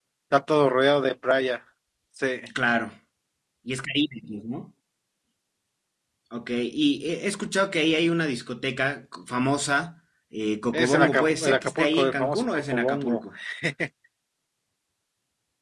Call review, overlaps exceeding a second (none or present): present